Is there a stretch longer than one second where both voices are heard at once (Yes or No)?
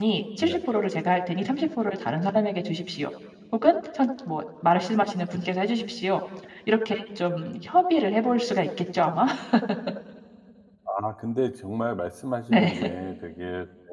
No